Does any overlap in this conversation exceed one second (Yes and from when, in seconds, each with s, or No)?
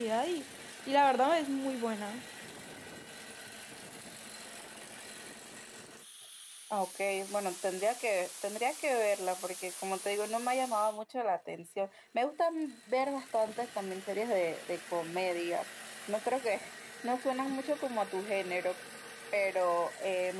No